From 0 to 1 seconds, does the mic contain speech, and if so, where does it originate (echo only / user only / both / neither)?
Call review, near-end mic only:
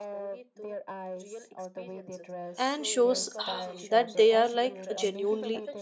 echo only